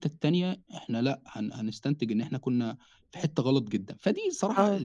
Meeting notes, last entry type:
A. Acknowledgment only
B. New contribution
A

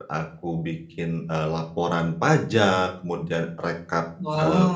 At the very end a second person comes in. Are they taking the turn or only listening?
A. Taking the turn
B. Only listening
B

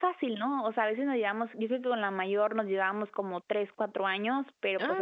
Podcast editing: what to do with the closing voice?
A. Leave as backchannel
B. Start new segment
A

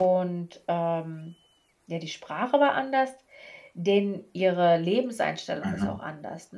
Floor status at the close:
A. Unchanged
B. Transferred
A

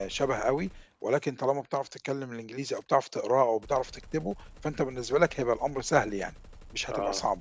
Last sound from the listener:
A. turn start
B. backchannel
A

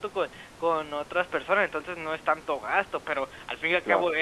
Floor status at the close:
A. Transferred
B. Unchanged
B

